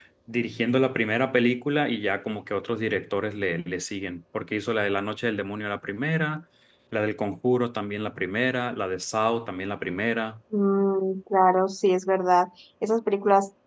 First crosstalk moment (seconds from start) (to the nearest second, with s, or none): none